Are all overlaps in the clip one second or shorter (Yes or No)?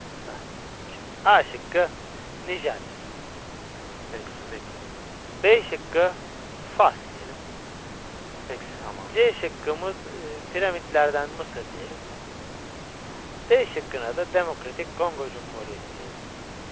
Yes